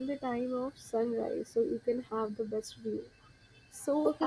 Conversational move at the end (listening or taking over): taking over